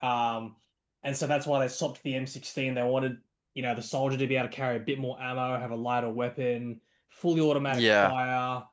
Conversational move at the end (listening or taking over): listening